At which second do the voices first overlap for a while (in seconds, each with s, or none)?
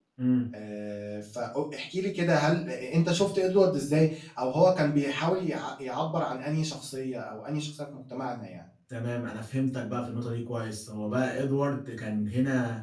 none